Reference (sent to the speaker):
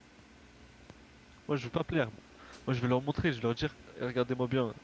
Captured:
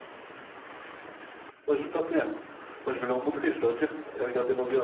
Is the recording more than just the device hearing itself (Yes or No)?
No